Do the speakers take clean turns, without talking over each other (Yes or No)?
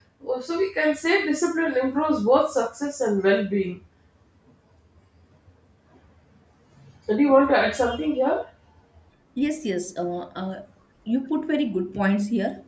Yes